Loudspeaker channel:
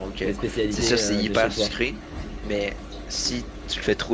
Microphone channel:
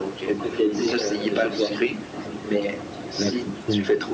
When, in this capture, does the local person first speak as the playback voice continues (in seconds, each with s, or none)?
3.2 s